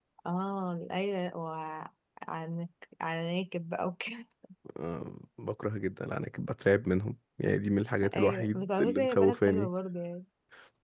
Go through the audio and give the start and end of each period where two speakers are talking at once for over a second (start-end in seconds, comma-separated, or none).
8.1-9.7